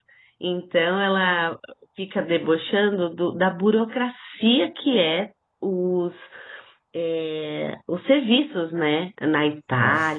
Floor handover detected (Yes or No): No